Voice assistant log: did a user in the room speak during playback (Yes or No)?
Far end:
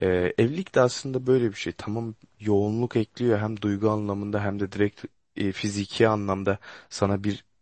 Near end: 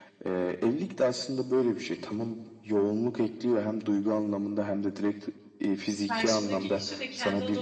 Yes